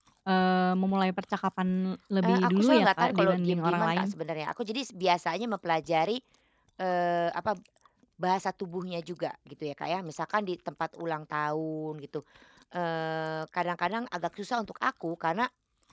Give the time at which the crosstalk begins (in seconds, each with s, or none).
2.2 s